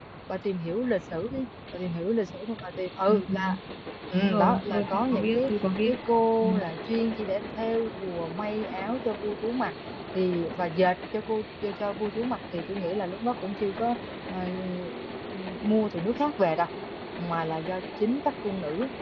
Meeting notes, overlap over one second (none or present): present